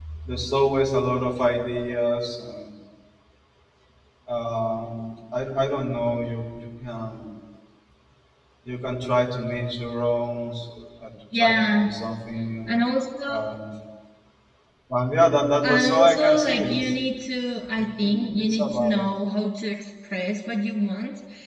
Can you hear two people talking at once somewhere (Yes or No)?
Yes